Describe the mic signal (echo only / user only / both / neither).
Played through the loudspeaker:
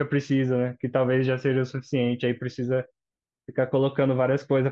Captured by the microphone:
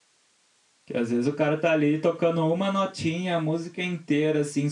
user only